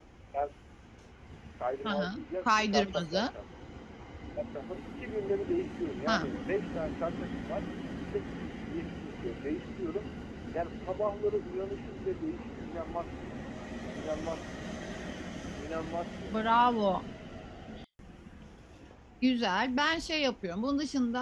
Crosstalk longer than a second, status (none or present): present